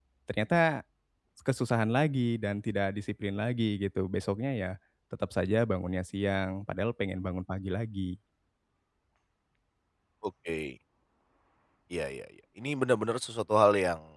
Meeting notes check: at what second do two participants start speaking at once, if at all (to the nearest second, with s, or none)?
none